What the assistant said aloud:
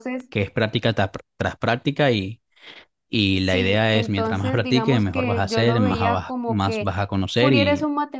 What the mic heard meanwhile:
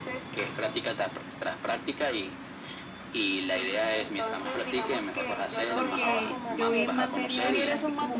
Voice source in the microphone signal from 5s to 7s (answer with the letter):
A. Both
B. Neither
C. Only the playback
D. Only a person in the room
A